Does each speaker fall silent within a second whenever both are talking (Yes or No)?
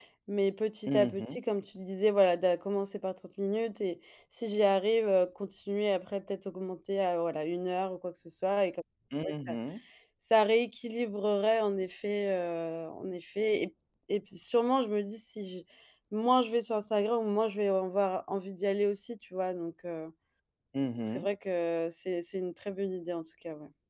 Yes